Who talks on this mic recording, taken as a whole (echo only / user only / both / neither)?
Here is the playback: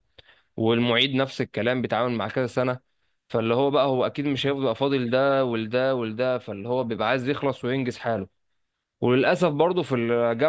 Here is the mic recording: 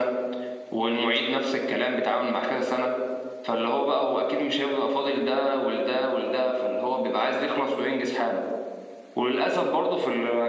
echo only